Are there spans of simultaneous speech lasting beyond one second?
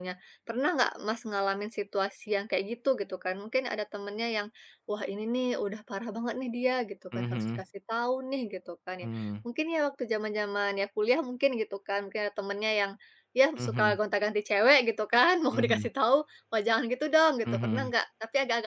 No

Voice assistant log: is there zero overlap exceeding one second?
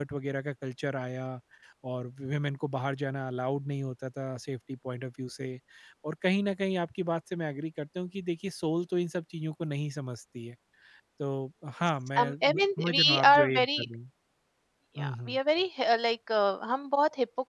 No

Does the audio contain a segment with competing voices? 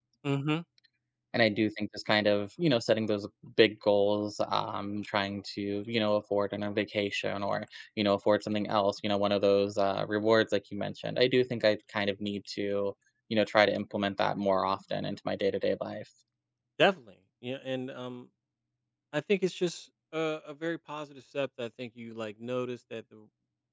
No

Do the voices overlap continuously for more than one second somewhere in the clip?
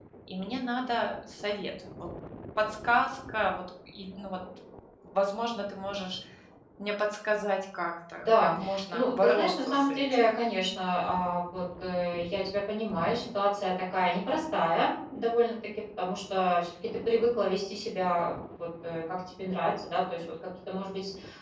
Yes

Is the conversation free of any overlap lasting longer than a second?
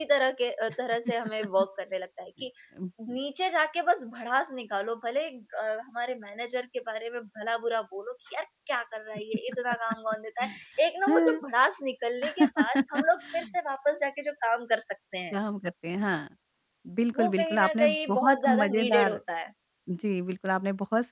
No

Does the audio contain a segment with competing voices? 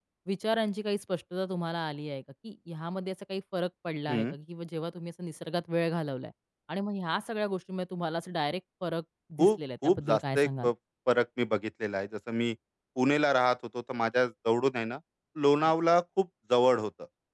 Yes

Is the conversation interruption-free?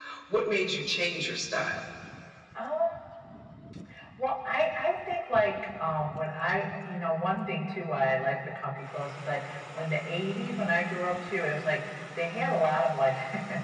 Yes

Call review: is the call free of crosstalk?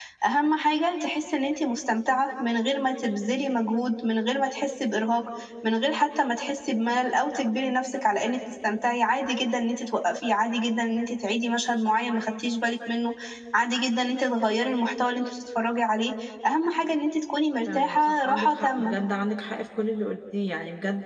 No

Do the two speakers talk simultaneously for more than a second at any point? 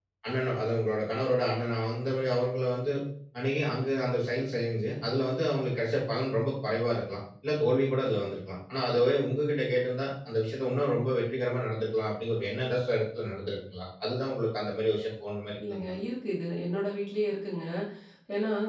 No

